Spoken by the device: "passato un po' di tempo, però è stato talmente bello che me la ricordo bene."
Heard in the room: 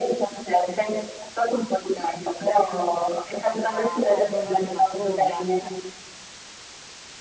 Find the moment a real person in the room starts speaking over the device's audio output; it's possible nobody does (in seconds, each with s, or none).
3.7 s